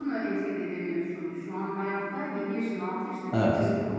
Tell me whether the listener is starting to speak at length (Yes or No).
No